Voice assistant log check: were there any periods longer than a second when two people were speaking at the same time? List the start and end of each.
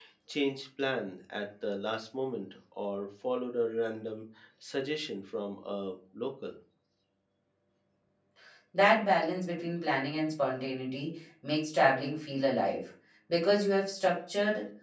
none

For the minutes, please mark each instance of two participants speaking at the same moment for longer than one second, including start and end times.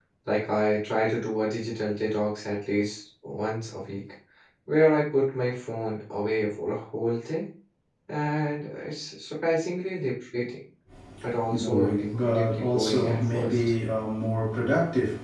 11.5-13.7

